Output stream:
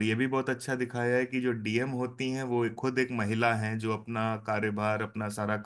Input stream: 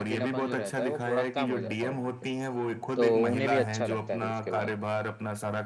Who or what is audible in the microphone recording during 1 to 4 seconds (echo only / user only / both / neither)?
both